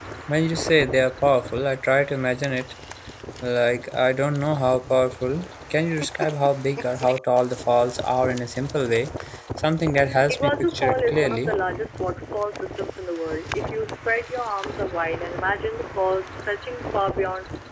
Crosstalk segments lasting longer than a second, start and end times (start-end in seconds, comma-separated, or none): 10.3-11.5